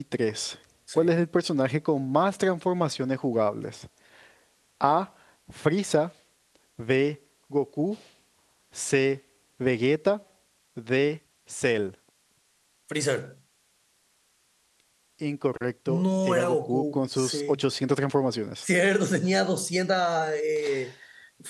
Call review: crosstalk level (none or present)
present